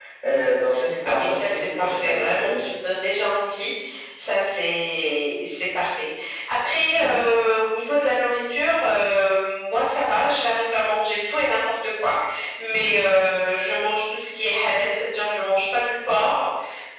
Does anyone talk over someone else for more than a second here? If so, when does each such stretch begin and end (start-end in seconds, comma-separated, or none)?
1.0-2.7